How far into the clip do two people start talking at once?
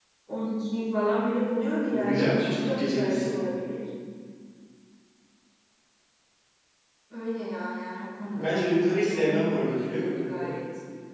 2 s

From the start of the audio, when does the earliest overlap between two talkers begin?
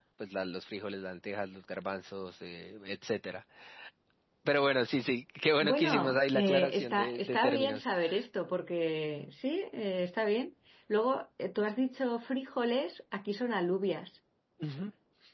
6 s

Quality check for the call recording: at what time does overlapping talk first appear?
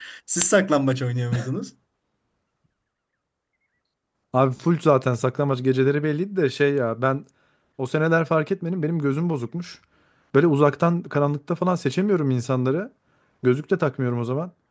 none

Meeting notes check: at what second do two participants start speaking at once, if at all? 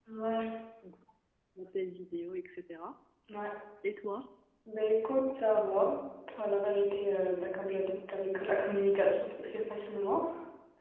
none

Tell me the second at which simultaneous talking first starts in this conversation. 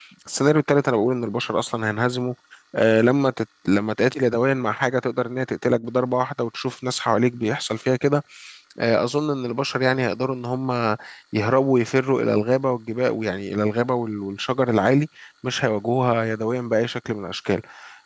none

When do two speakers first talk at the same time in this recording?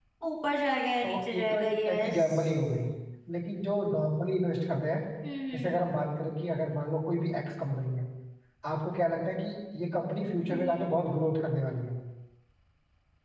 1 s

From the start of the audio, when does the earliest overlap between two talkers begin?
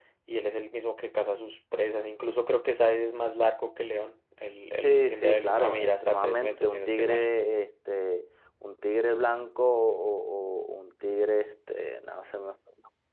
5 s

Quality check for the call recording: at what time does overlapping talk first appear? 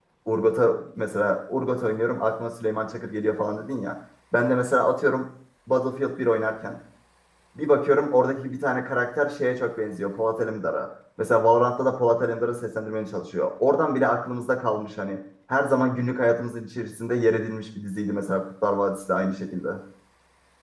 none

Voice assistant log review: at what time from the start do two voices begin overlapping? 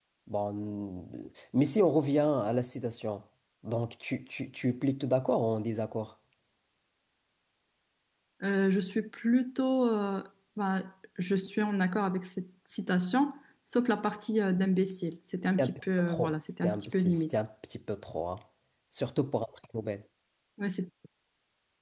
16 s

